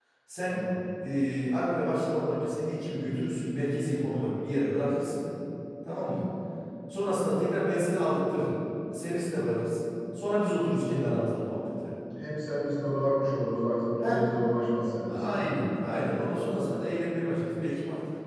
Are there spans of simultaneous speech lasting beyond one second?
No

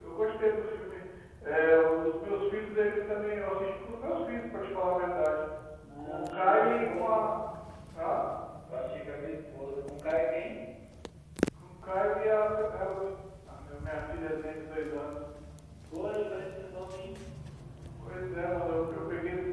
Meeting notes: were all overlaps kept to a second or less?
No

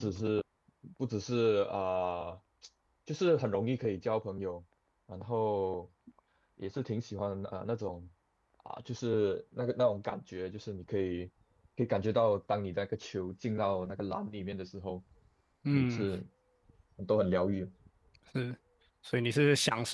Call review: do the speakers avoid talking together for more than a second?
Yes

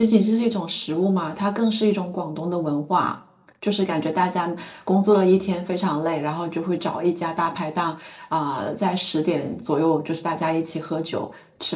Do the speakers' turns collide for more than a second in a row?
No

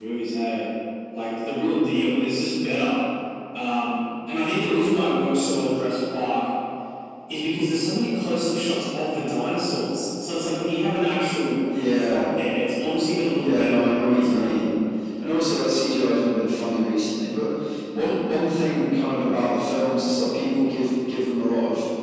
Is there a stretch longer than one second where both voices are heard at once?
Yes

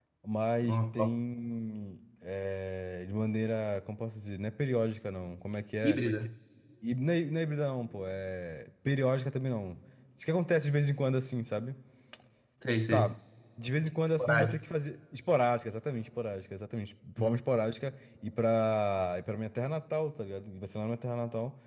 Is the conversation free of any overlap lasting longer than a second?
Yes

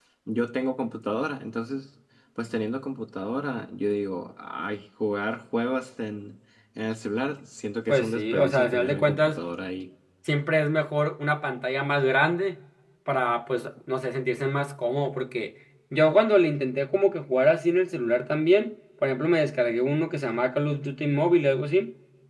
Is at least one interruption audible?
Yes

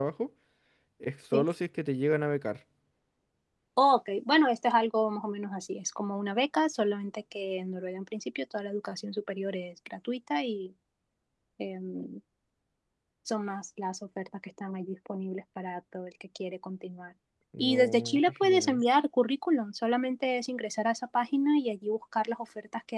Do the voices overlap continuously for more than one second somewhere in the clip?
Yes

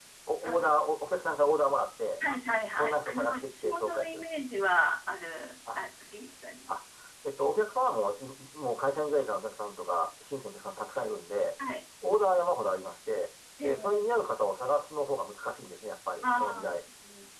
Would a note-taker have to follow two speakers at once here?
Yes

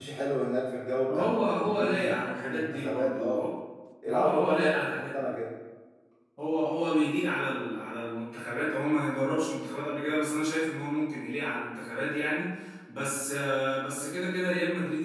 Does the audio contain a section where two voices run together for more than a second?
Yes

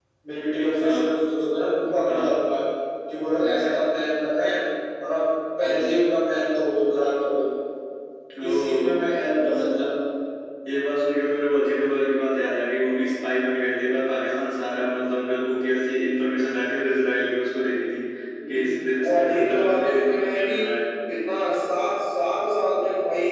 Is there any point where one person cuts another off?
Yes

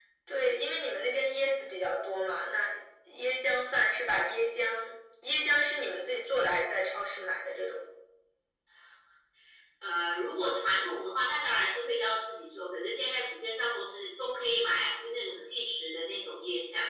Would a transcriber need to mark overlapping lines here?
No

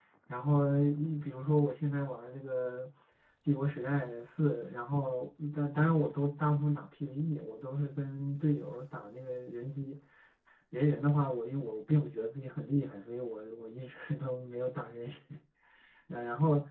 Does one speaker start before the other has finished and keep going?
No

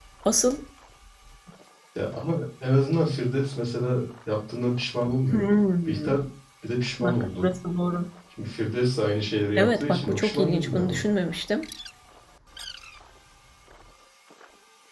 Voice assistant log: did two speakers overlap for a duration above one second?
Yes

